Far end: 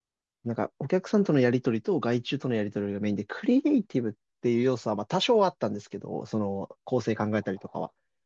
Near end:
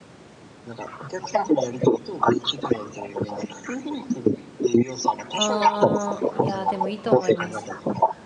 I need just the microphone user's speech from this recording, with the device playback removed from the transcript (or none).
ああ、いやでもいいと思います。